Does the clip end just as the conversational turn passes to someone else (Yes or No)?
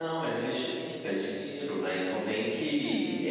No